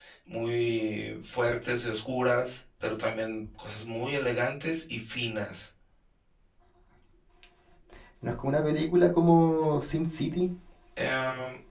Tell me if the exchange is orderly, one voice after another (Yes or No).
Yes